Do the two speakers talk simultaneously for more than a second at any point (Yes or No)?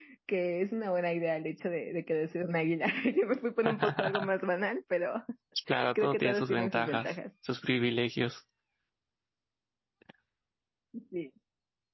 Yes